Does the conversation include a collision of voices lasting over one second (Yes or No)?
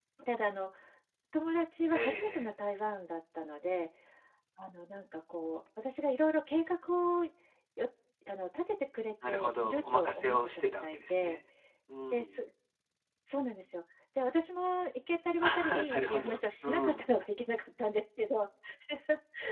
Yes